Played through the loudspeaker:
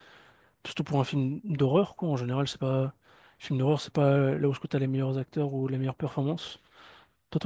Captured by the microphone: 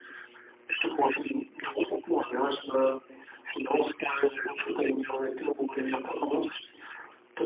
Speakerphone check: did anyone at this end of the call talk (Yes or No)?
No